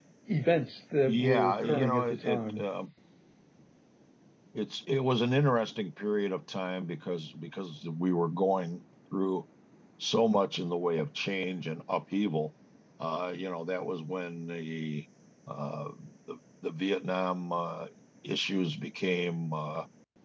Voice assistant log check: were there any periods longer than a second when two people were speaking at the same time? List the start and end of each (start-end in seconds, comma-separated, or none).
1.0-2.6